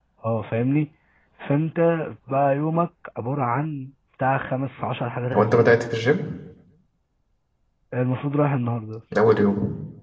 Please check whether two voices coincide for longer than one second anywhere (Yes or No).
No